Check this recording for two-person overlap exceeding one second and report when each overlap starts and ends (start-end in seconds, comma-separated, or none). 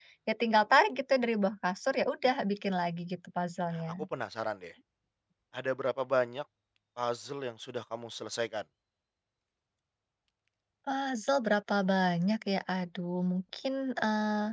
none